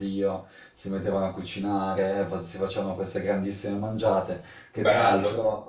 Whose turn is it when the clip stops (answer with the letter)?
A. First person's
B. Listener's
A